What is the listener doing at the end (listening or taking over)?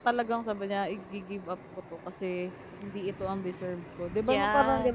taking over